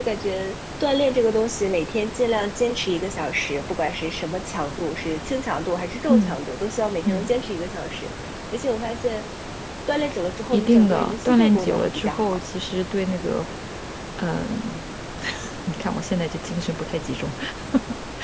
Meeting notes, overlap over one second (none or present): present